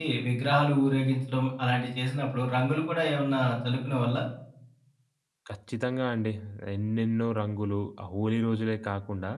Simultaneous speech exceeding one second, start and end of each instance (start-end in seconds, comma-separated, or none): none